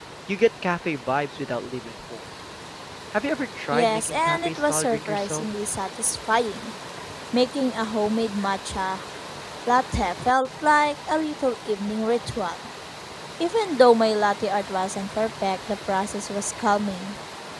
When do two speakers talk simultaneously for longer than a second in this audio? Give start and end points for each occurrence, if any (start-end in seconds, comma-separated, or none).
3.7-5.4